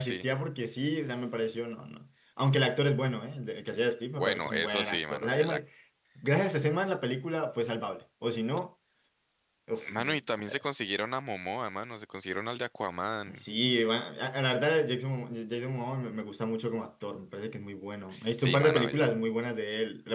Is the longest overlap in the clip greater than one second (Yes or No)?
Yes